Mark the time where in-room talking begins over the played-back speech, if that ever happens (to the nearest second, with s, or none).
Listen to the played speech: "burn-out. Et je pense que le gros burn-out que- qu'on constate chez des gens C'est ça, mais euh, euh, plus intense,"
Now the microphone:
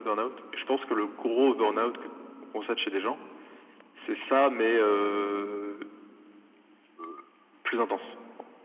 none